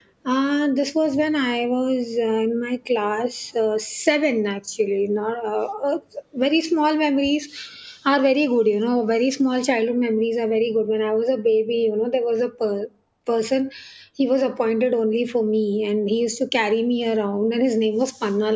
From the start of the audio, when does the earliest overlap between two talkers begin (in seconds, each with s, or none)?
none